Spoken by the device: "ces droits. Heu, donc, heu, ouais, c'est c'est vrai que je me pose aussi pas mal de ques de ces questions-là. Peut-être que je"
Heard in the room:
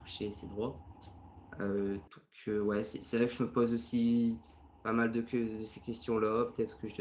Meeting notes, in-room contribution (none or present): none